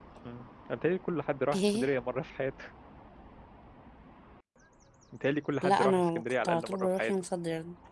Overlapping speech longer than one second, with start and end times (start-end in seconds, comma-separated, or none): 5.6-7.1